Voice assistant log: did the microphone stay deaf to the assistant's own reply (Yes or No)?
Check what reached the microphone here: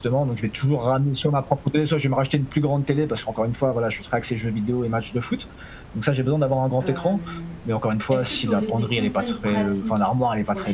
No